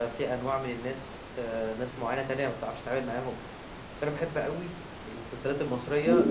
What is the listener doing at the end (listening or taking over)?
listening